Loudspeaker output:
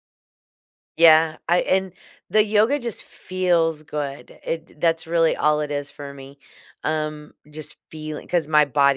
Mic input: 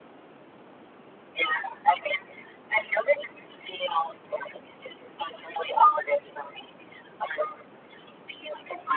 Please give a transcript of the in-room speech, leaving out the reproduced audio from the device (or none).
none